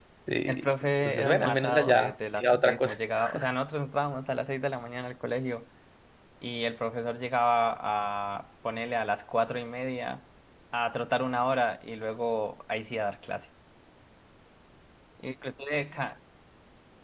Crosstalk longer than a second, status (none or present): present